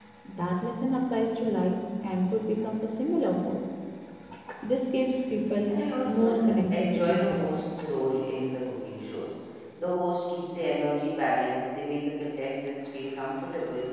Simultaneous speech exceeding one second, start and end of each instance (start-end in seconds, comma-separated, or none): 5.7-7.5